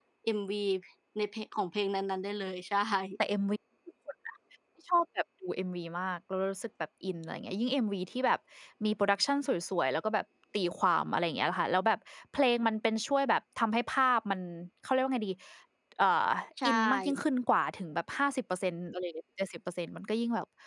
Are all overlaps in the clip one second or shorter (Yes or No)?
Yes